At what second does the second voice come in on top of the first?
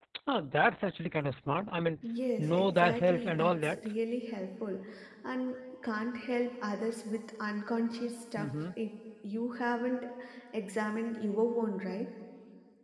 2.4 s

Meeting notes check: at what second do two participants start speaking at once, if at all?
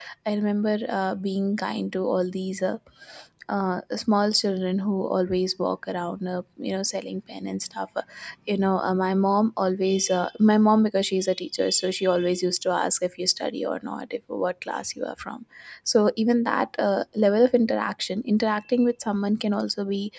none

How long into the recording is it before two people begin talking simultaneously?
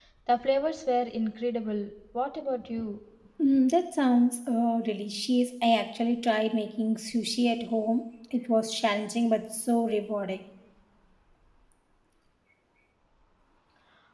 none

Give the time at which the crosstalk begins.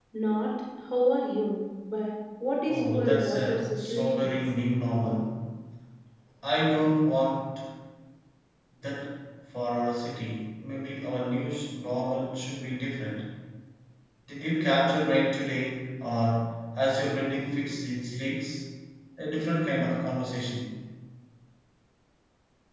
2.7 s

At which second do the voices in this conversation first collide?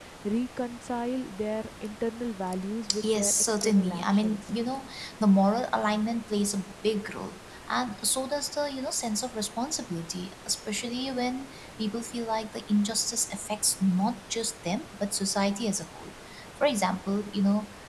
2.9 s

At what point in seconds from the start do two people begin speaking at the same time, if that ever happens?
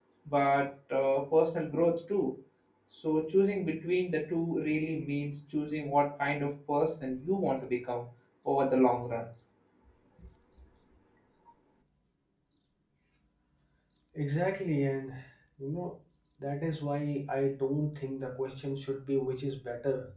none

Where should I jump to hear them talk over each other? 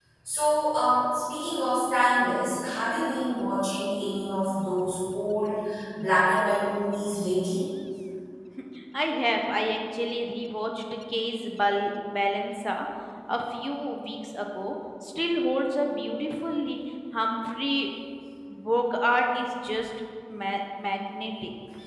none

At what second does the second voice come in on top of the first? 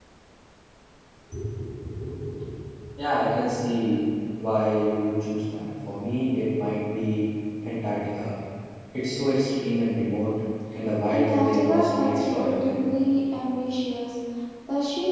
11.1 s

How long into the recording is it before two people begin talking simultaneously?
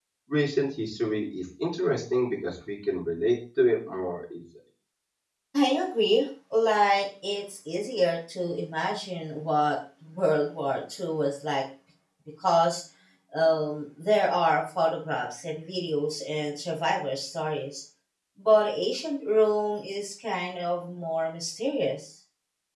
none

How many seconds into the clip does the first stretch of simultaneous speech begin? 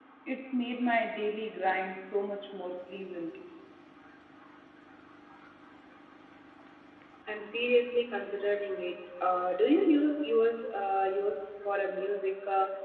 none

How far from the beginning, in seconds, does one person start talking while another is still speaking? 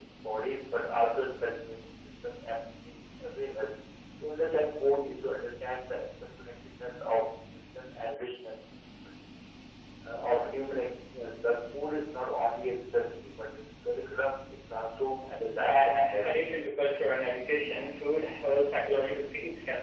15.6 s

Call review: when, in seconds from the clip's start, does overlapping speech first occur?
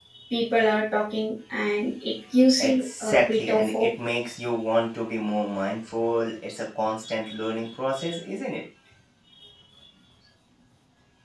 2.6 s

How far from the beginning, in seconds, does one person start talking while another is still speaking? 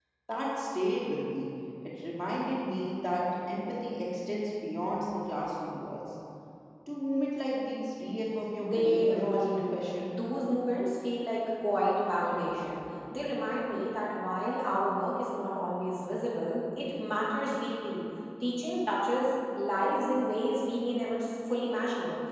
8.6 s

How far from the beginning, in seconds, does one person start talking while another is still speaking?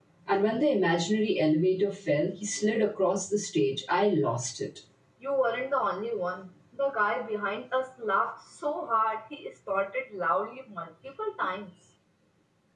none

